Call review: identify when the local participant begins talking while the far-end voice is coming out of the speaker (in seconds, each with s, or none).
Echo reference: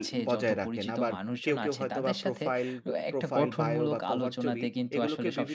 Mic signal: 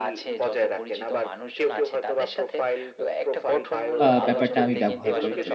4.0 s